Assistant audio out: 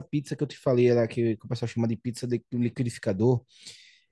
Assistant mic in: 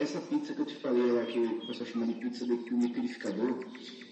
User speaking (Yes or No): No